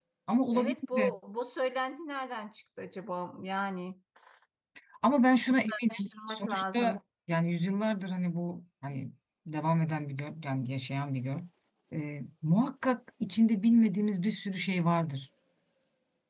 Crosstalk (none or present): present